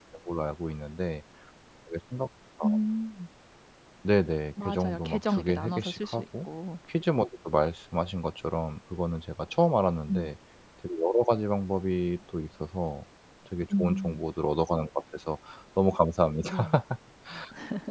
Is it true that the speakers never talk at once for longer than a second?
No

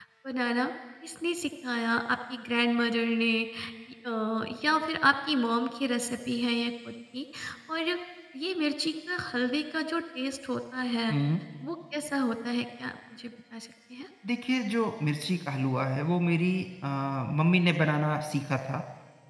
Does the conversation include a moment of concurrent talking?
No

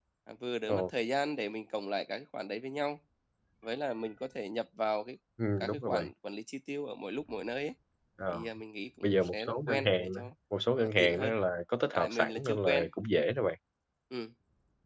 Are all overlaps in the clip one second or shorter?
No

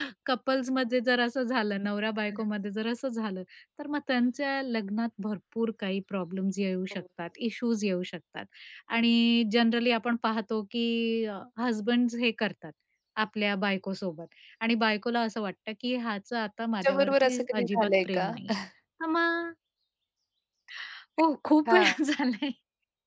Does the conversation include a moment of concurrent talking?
Yes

